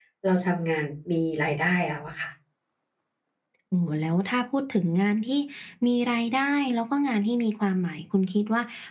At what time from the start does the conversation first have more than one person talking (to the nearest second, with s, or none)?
none